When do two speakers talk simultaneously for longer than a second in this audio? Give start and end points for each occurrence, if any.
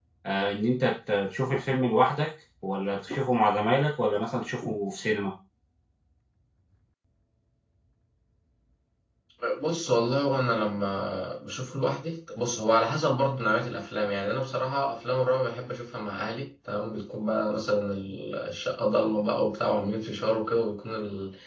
none

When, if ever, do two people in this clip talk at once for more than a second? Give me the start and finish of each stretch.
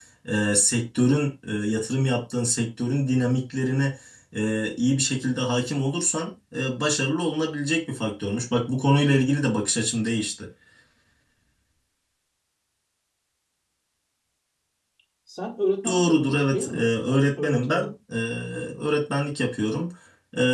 15.8-17.9

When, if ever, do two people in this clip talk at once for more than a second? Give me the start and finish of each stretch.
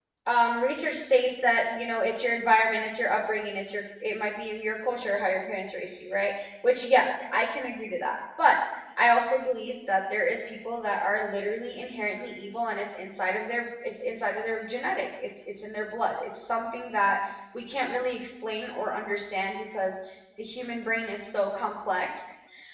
none

